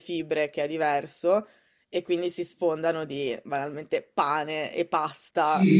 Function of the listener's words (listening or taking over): taking over